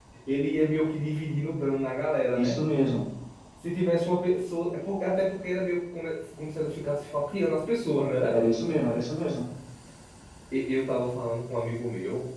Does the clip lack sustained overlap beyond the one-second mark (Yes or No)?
Yes